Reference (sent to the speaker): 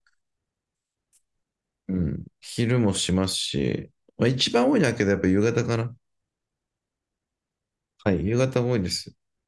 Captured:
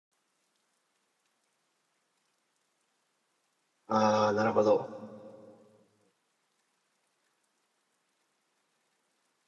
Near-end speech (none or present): present